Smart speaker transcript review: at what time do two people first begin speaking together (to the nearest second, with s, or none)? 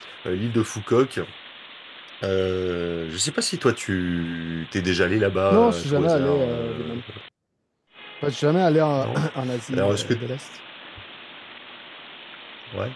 5 s